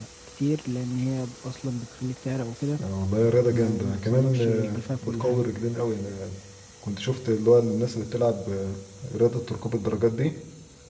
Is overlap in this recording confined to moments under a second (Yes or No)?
No